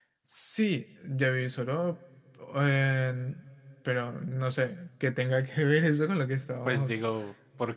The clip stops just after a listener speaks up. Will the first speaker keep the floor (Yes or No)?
No